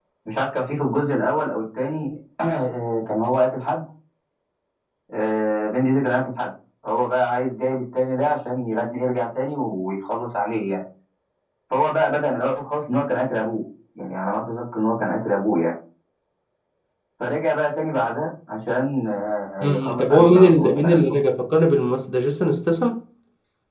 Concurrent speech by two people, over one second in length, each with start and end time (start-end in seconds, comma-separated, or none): 19.6-21.2